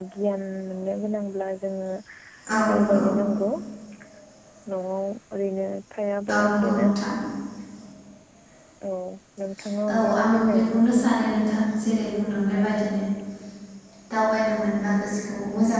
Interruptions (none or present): present